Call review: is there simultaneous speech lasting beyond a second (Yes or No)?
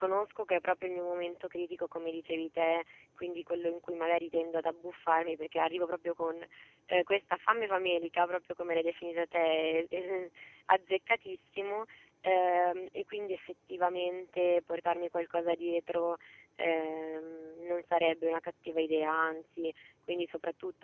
No